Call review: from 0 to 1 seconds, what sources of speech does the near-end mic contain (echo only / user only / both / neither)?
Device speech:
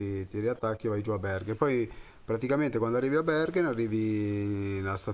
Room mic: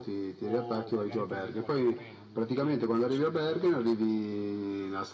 both